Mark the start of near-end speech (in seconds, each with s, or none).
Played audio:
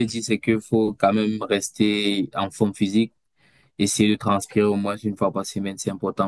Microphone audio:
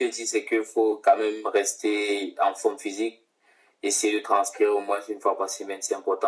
none